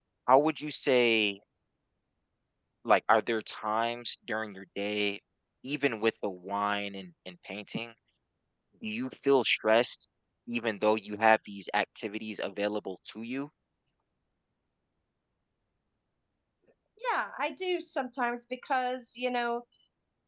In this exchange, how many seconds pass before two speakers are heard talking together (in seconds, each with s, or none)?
none